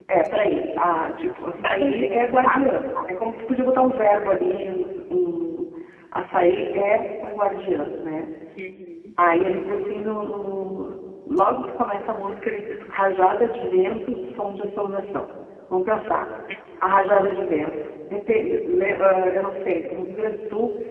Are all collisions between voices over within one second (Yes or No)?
No